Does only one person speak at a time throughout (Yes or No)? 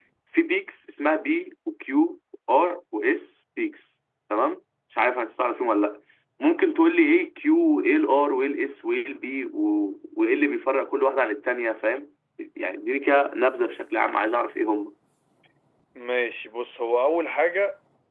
Yes